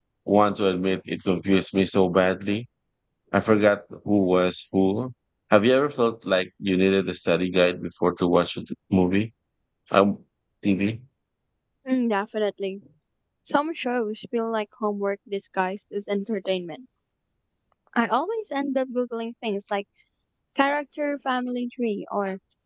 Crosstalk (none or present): none